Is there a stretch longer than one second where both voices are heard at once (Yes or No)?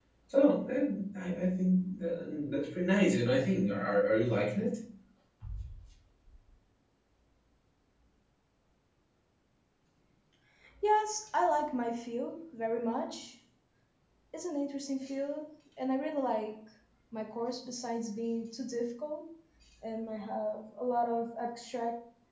No